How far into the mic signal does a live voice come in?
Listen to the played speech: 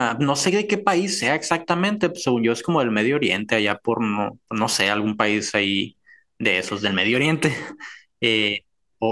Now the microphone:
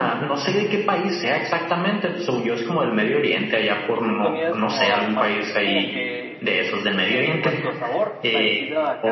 3.9 s

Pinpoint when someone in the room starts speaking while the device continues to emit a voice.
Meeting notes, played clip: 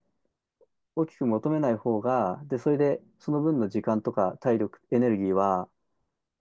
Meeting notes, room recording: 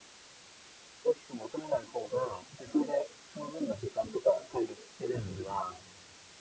5.2 s

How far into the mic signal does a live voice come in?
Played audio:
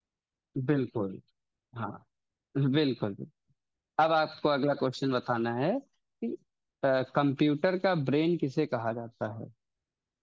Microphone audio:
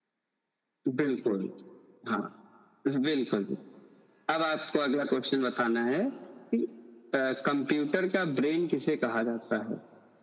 none

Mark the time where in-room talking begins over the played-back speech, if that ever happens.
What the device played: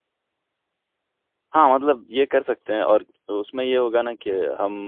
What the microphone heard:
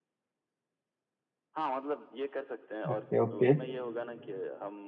2.9 s

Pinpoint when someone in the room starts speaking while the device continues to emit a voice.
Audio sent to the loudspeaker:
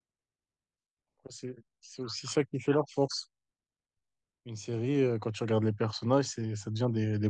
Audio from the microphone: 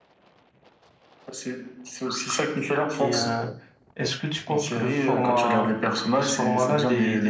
3.0 s

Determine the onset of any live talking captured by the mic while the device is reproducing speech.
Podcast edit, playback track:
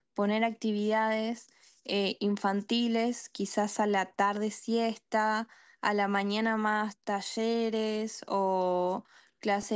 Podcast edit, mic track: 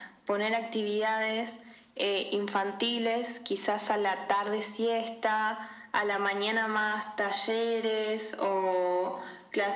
none

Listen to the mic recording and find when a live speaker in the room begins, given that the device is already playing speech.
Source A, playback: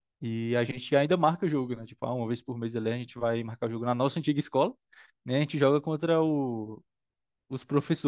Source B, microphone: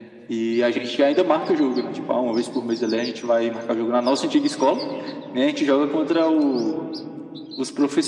none

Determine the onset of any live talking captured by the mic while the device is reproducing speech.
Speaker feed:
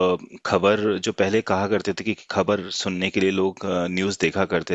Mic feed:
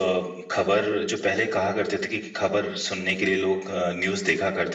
none

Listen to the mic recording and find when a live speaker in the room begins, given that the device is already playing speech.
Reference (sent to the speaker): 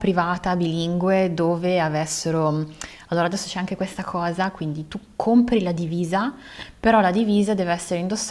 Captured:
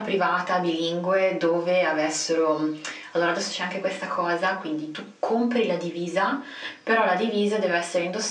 none

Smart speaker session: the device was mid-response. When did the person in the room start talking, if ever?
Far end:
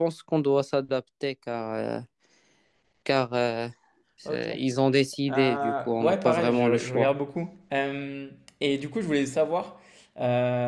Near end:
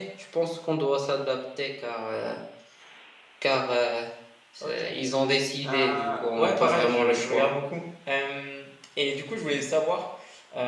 none

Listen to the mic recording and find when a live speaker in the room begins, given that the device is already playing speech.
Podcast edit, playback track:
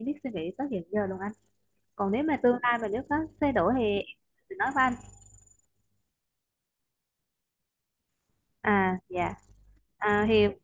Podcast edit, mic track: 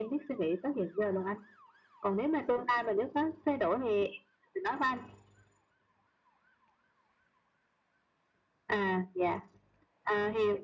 none

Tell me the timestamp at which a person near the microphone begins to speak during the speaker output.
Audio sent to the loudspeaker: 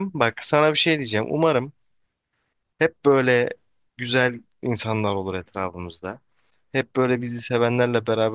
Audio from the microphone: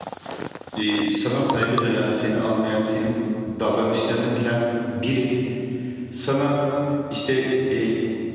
0.7 s

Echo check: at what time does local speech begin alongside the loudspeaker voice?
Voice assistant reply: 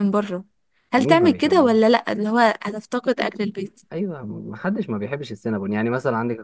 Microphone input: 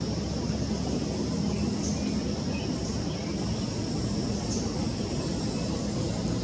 none

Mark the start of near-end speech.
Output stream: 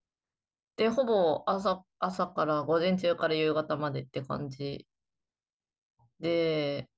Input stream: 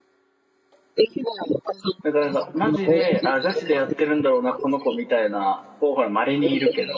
2.0 s

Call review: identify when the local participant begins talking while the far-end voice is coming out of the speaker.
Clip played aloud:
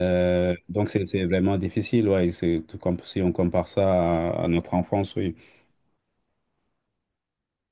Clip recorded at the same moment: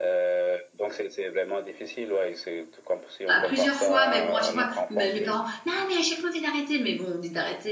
3.3 s

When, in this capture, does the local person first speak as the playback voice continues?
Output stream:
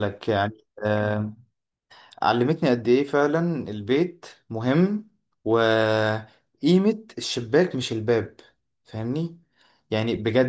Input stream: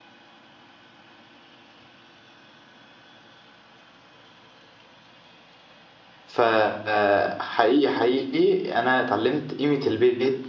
6.2 s

